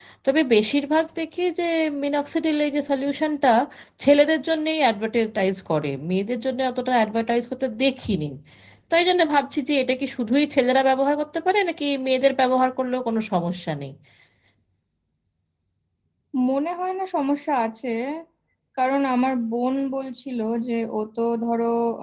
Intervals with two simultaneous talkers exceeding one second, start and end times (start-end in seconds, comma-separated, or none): none